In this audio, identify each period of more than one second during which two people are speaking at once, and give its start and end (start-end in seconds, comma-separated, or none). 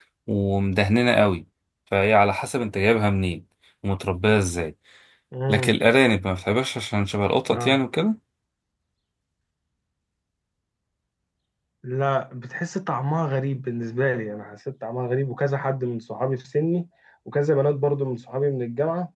none